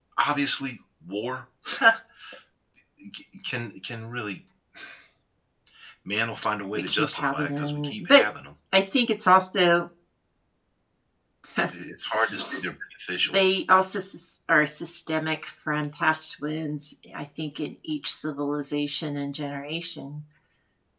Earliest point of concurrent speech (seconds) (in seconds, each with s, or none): 6.7 s